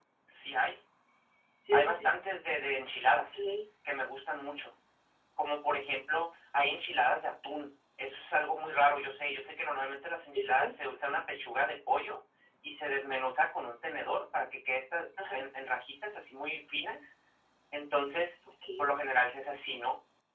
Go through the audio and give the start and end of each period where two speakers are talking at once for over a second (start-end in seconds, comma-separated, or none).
none